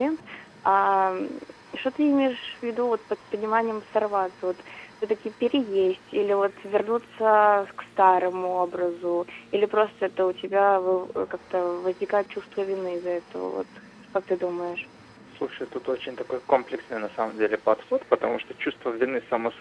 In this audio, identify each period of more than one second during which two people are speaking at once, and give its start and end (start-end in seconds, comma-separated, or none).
none